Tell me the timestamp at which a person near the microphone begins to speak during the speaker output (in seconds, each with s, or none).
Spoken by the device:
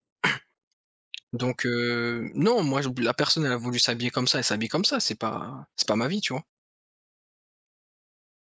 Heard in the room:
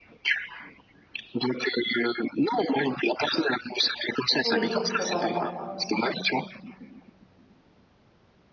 4.4 s